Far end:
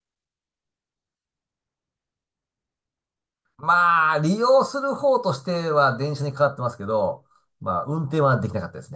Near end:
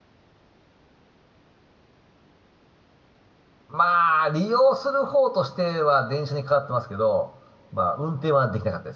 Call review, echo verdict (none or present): present